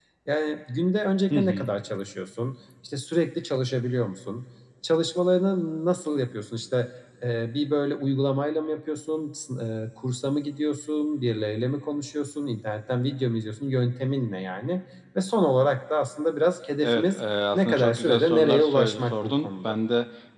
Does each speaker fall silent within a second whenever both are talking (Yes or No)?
No